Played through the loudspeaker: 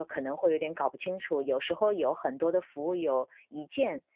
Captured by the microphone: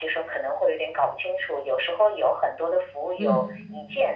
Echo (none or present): present